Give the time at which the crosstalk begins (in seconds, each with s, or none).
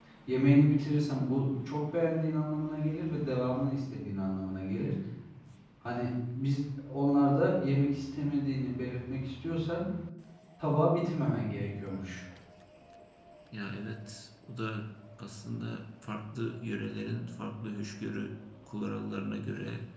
none